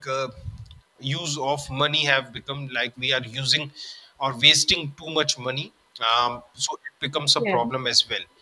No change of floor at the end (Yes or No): Yes